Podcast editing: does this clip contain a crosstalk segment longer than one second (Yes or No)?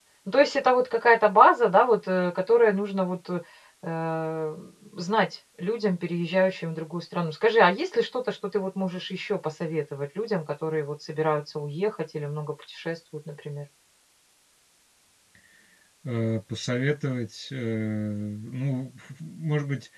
No